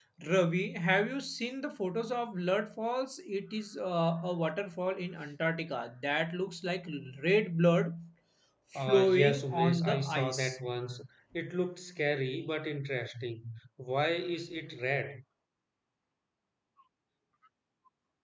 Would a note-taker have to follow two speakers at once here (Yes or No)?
Yes